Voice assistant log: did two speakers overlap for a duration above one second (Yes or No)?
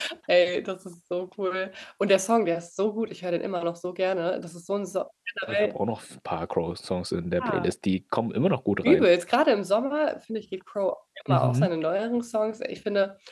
No